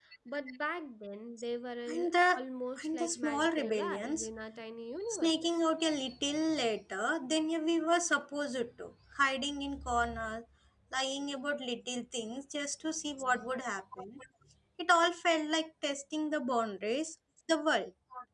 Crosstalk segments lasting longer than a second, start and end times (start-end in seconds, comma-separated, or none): 2.8-4.3